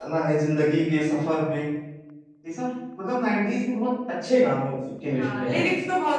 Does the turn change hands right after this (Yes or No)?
Yes